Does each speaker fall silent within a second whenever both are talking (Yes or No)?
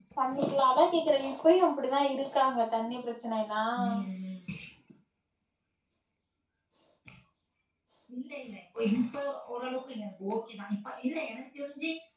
Yes